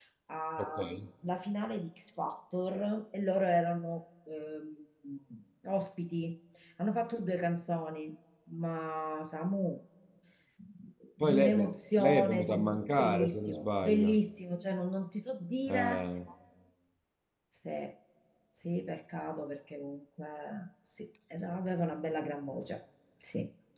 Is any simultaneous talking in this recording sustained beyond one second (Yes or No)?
Yes